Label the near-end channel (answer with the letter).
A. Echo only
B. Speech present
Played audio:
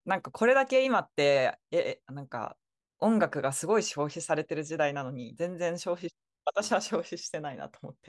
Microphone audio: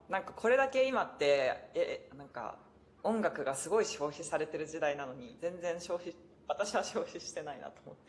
A